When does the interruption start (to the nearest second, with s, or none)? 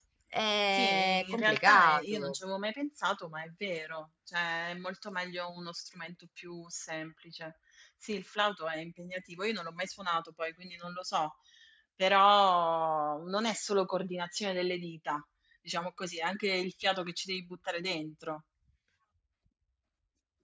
1 s